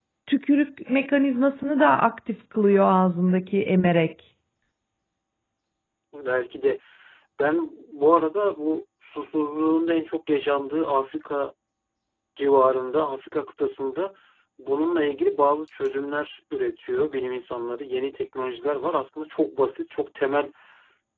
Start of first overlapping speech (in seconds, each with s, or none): none